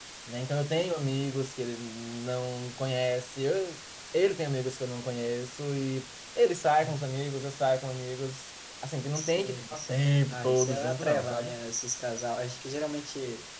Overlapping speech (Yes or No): Yes